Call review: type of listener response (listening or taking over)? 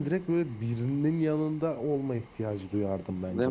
taking over